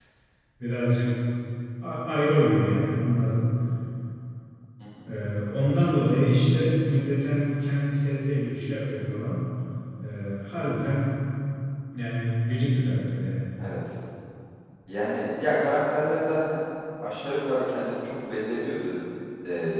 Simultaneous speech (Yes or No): No